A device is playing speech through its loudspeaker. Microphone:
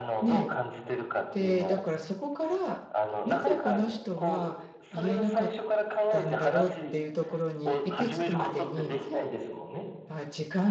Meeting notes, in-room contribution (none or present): present